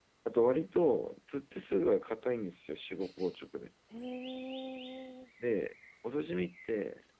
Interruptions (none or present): none